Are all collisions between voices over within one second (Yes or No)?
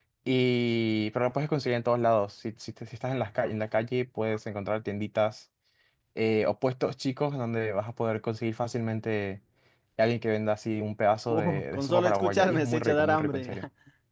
No